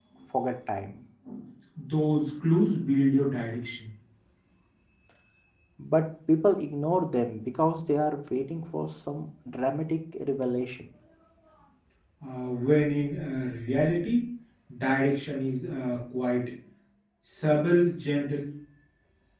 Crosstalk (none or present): none